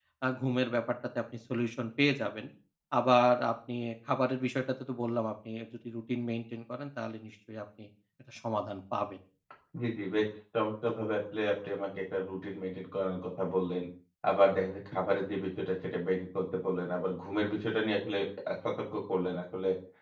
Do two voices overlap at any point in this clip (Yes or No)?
No